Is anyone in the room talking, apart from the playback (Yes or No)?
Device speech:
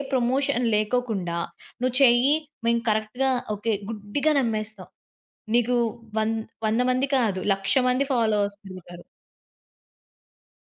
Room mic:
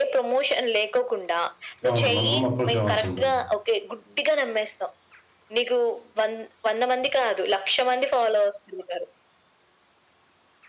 Yes